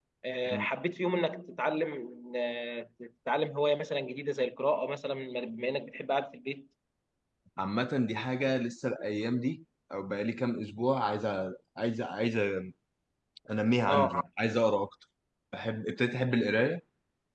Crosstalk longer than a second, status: none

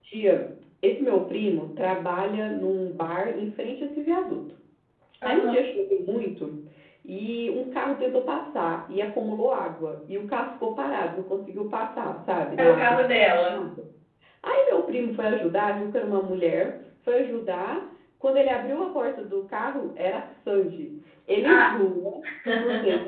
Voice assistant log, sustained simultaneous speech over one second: none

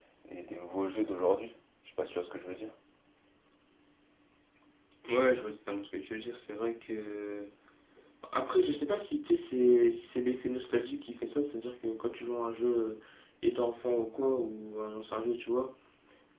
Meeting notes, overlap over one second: none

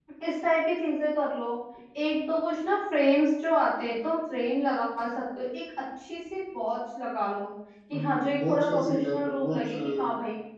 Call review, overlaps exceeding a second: present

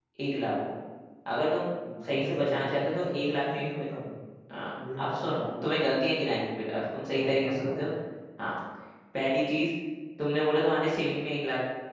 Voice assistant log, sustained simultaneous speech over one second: present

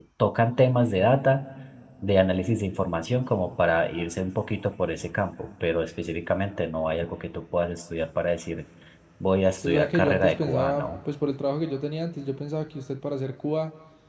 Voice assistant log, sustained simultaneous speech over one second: present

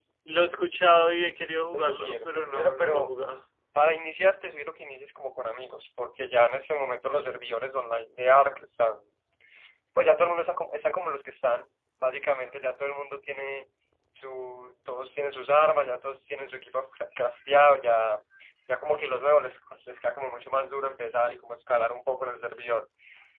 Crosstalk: present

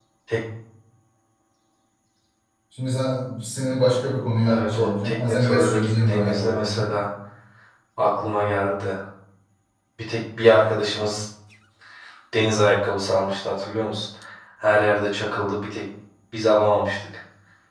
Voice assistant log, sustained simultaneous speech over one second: present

